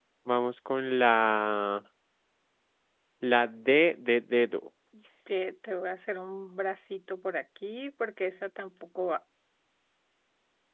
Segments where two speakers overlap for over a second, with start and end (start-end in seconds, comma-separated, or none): none